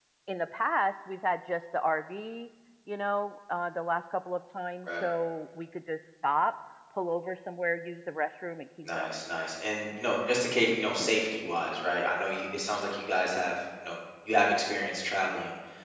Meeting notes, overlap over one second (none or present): none